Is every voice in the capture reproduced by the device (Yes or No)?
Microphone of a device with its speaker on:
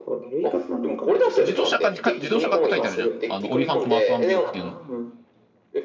No